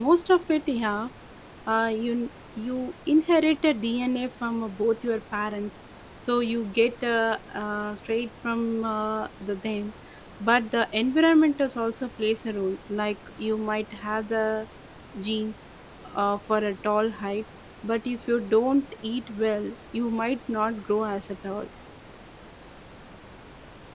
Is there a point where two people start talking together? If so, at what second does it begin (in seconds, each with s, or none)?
none